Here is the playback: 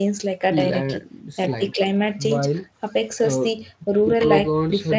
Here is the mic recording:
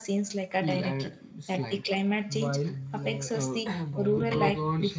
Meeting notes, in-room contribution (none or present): present